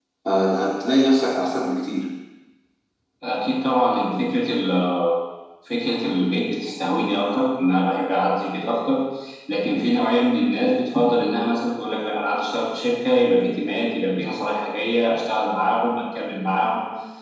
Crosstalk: none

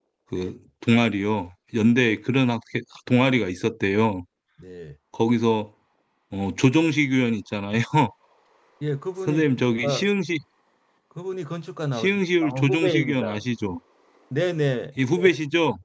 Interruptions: present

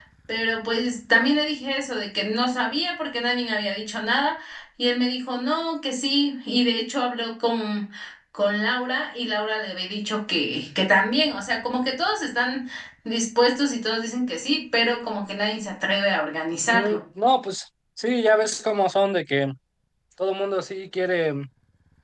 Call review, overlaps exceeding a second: none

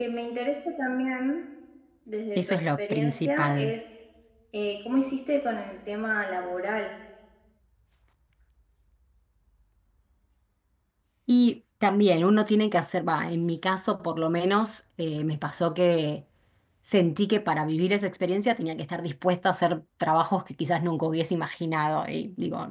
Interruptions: present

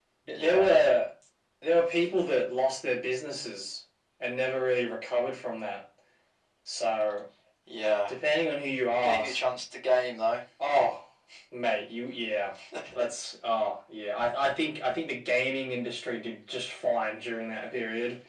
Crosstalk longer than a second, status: none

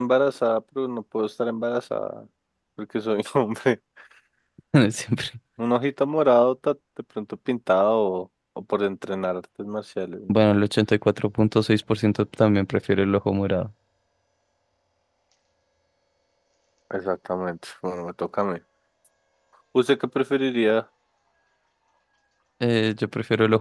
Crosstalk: none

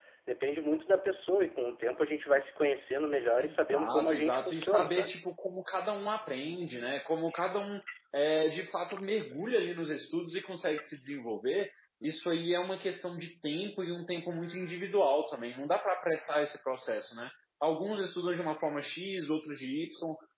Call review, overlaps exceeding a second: present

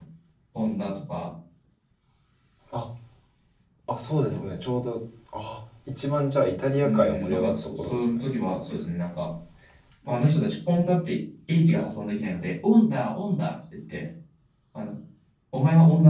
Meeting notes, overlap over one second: present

